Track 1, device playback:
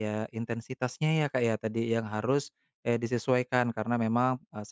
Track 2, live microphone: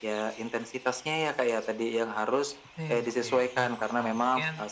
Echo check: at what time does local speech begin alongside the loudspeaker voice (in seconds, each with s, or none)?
2.6 s